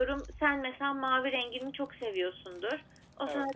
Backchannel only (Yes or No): Yes